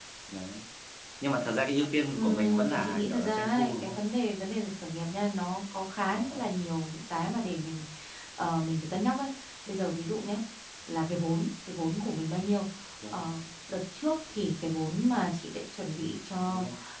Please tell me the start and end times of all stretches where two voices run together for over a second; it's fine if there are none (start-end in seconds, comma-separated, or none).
2.1-4.0